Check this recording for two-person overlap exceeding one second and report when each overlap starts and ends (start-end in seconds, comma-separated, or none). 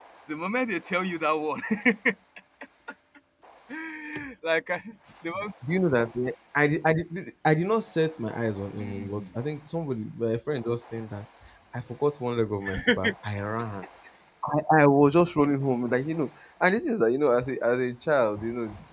none